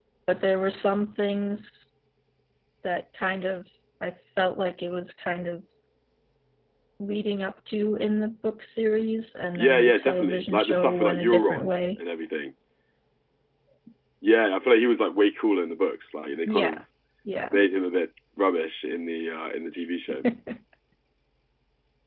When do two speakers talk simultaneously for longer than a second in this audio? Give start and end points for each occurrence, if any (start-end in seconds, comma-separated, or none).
9.6-11.8